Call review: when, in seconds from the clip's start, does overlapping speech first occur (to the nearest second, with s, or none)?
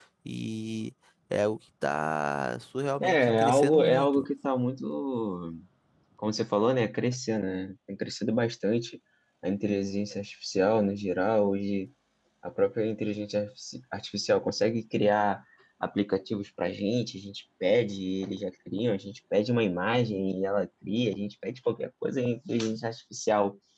3 s